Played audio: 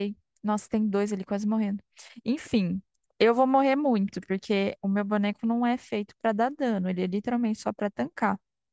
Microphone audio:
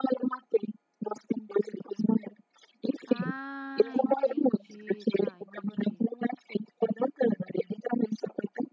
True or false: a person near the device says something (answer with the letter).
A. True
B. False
A